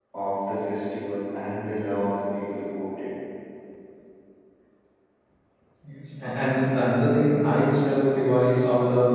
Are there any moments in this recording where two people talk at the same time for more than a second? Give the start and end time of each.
none

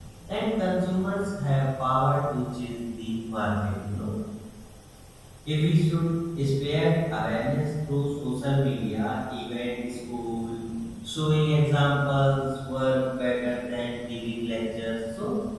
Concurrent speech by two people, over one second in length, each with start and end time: none

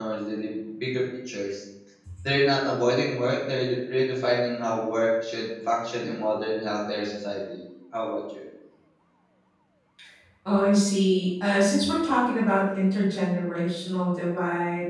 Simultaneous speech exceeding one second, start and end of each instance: none

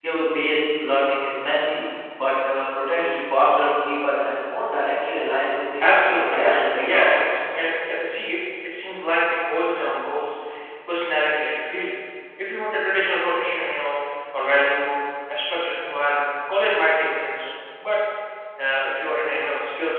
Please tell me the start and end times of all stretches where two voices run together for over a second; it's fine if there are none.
5.8-7.1

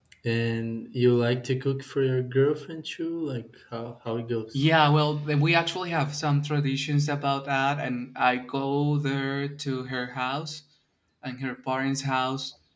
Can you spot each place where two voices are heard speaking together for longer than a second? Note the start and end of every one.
none

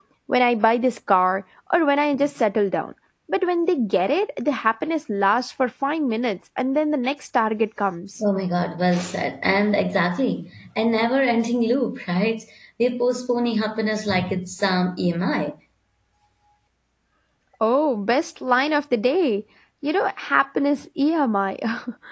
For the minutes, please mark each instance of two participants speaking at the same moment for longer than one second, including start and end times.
none

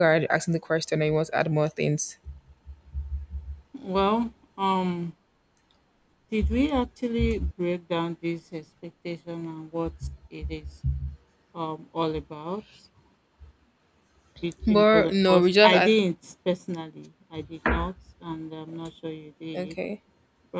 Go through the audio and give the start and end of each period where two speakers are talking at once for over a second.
14.7-15.9

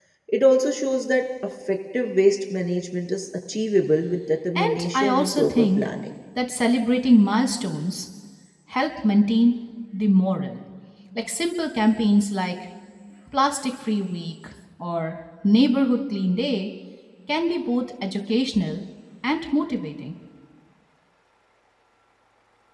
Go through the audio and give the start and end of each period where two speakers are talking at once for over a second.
4.5-5.8

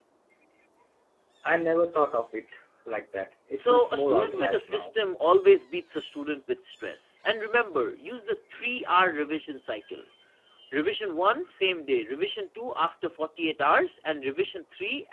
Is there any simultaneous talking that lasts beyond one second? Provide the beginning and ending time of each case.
3.6-4.9

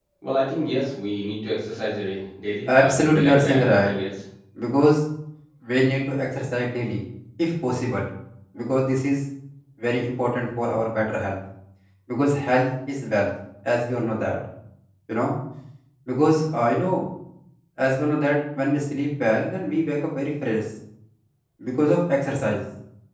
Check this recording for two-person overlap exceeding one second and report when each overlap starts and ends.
2.7-3.9

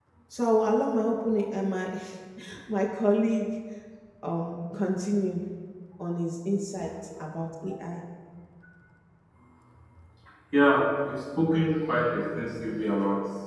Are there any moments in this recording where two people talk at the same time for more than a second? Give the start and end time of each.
none

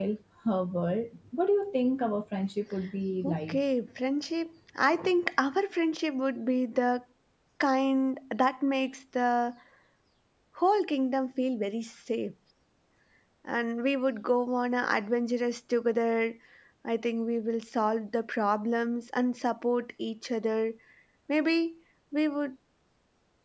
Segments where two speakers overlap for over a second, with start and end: none

